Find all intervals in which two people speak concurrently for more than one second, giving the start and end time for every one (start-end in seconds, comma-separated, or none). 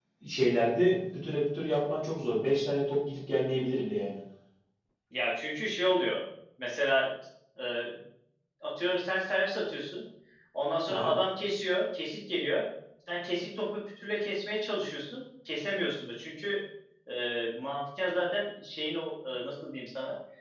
none